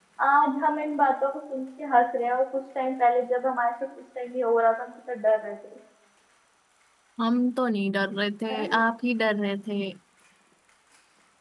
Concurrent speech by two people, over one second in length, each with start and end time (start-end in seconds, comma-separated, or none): none